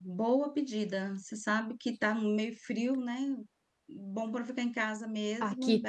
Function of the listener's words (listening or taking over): taking over